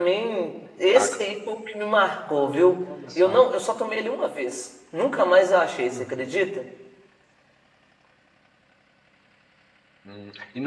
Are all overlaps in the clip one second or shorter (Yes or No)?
Yes